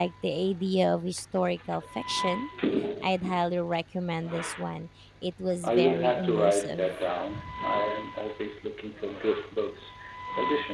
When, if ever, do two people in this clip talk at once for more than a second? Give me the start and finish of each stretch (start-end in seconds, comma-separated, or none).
5.6-6.9